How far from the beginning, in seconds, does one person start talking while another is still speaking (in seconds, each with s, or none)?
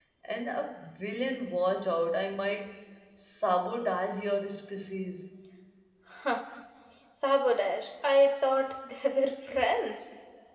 none